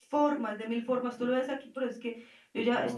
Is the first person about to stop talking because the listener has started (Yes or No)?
No